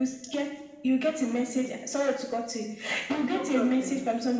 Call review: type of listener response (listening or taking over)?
listening